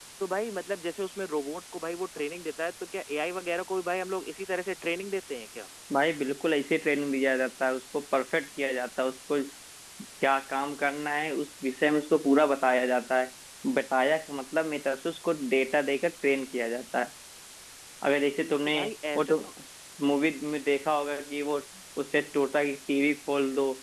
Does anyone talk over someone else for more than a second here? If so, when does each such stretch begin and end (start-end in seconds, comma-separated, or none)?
none